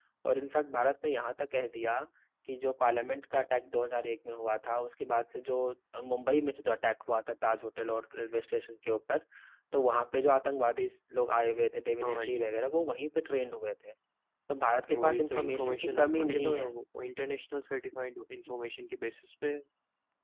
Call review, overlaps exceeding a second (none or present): present